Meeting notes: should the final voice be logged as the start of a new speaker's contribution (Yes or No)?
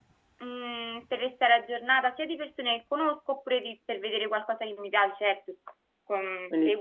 No